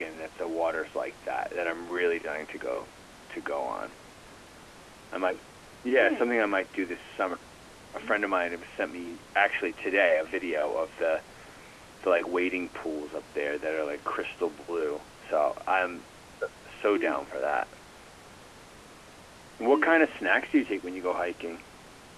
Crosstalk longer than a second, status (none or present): none